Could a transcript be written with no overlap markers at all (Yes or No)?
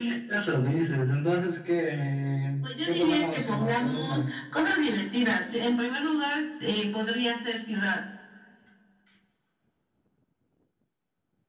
No